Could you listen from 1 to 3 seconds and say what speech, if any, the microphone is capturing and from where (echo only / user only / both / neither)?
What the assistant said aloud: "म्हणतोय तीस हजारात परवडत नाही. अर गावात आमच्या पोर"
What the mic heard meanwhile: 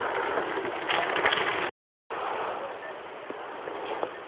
neither